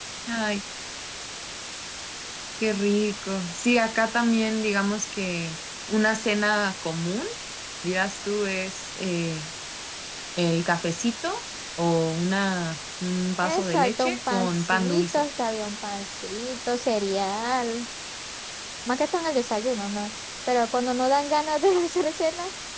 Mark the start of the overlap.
13.4 s

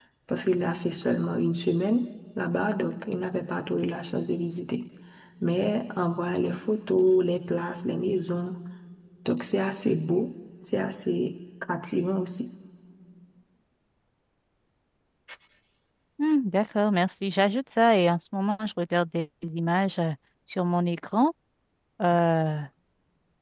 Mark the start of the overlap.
none

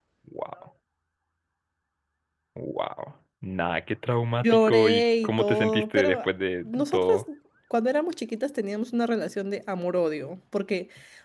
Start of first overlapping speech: 4.4 s

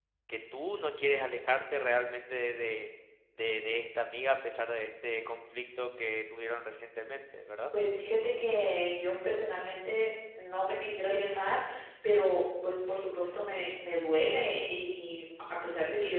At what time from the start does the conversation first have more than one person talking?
none

